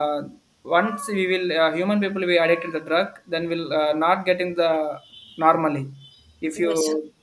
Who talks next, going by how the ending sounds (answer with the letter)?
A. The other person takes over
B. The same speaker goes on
B